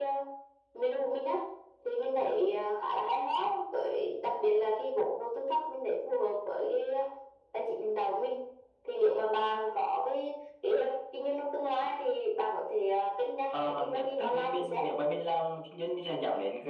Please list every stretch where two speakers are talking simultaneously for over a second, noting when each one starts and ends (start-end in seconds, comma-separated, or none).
13.5-14.8